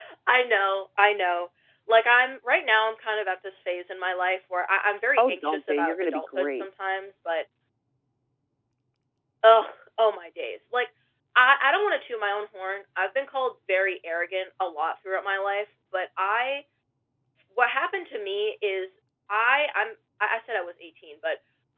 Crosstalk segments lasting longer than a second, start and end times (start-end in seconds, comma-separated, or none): 5.2-6.7